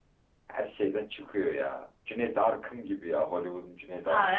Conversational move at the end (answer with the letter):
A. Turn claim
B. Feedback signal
A